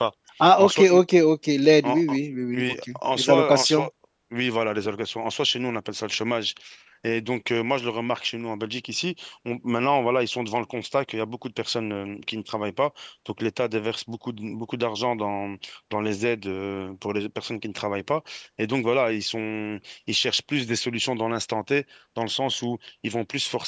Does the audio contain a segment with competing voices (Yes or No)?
Yes